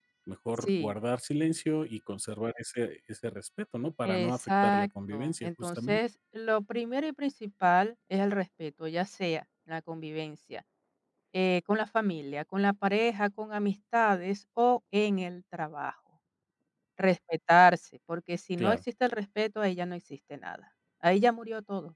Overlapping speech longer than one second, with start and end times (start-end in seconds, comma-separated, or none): 4.0-6.0